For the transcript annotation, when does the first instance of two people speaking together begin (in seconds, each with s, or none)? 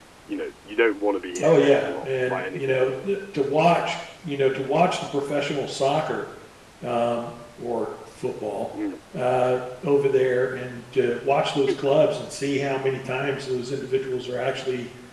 1.4 s